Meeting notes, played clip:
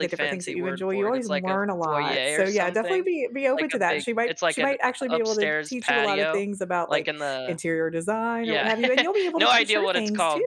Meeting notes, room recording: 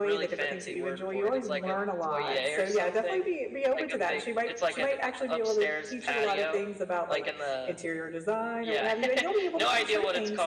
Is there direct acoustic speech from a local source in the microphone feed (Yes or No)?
No